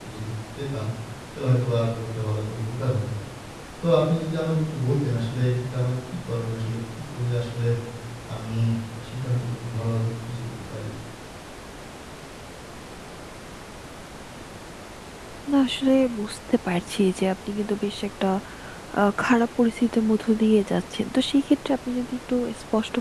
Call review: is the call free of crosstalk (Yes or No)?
Yes